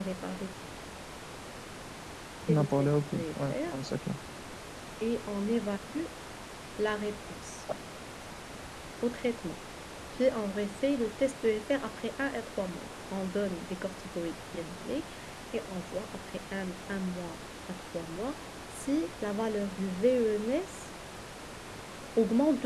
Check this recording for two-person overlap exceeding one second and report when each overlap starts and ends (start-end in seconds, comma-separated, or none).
2.5-3.7